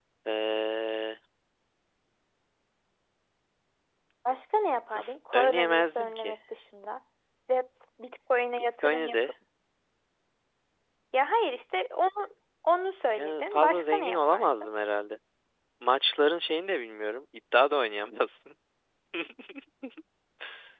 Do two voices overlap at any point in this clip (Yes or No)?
Yes